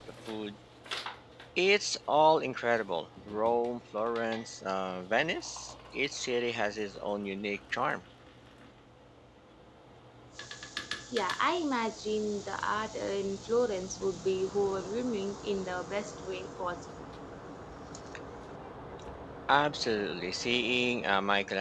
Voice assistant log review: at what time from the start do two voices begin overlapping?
none

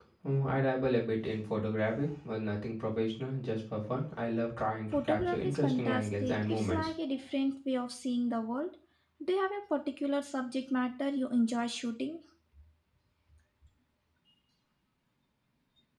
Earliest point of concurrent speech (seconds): 4.9 s

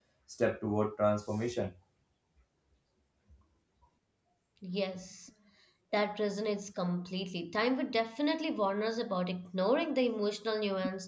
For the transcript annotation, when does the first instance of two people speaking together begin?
none

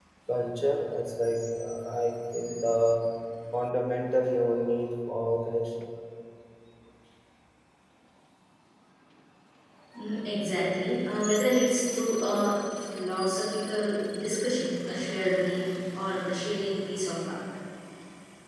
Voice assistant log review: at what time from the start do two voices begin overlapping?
none

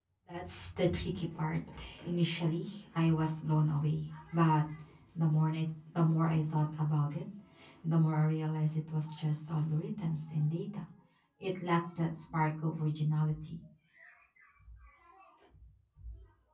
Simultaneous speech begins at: none

